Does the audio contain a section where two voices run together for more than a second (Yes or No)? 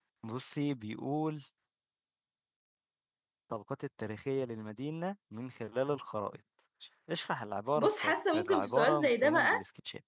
Yes